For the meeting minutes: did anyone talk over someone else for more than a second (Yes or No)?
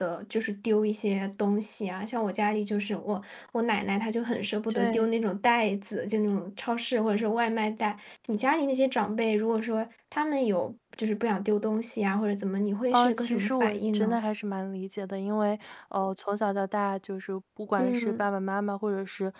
Yes